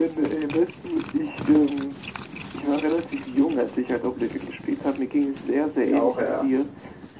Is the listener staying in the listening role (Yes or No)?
Yes